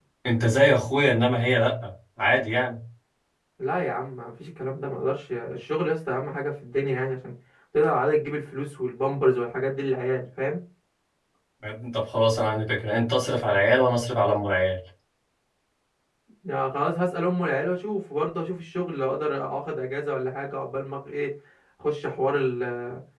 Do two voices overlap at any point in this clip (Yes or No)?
No